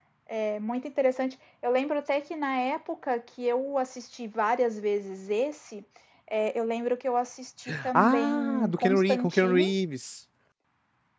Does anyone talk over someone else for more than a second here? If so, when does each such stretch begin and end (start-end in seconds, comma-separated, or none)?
7.9-9.7